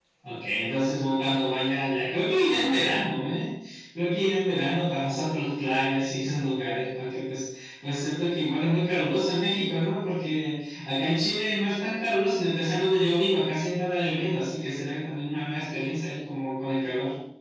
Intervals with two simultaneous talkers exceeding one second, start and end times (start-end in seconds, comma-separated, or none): none